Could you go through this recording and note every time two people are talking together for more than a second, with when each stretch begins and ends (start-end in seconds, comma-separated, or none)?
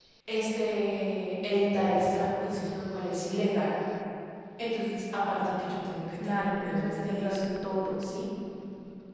6.1-7.4